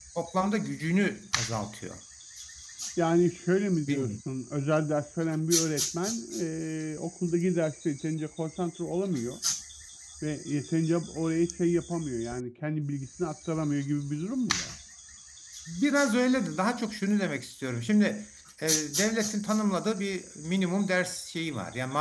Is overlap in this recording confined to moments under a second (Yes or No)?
Yes